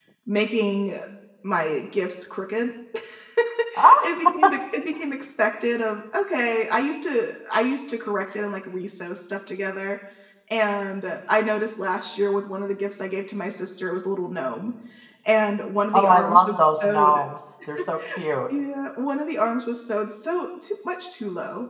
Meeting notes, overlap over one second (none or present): present